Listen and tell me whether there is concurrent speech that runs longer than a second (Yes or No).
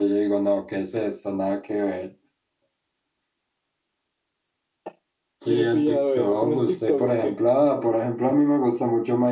Yes